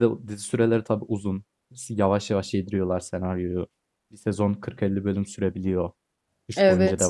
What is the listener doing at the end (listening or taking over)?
taking over